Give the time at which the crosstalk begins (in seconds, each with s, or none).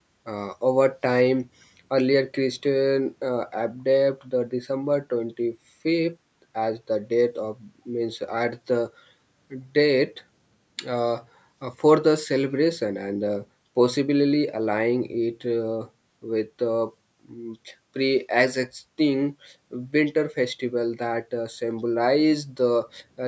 none